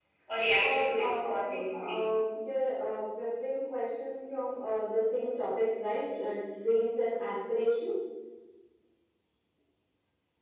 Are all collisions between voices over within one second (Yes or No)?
No